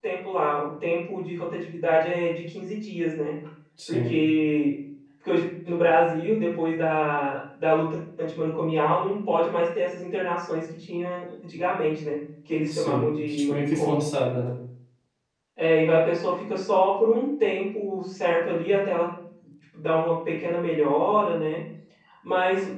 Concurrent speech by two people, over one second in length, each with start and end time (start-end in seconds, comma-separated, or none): 12.7-14.1